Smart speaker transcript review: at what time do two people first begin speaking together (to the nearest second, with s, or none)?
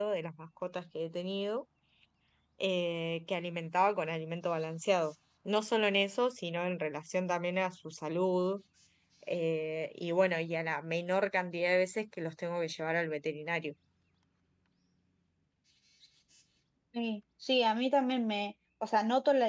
none